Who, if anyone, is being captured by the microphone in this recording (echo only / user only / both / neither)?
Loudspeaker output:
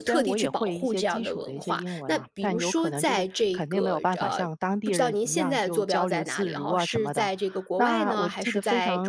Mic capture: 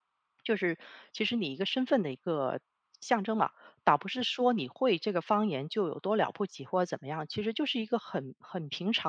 user only